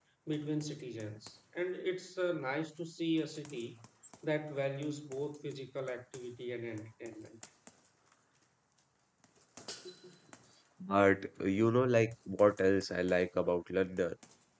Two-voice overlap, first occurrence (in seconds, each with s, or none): none